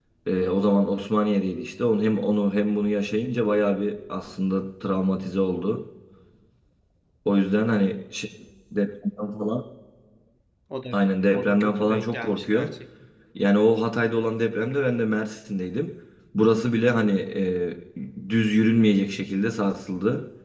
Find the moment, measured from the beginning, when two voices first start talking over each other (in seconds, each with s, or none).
11.3 s